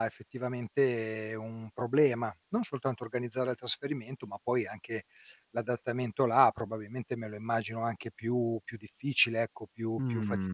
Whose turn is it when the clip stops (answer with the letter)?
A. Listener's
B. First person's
A